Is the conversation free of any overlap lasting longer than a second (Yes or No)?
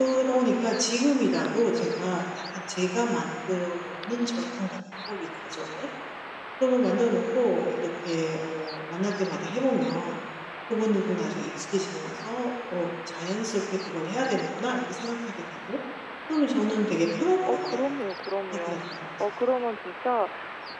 Yes